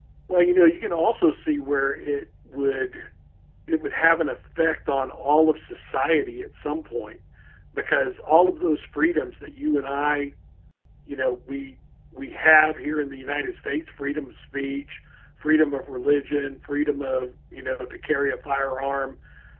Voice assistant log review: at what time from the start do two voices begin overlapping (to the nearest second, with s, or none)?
none